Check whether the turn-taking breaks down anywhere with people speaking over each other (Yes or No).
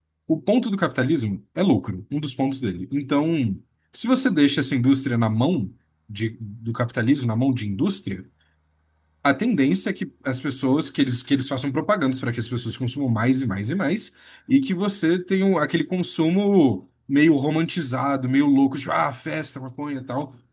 No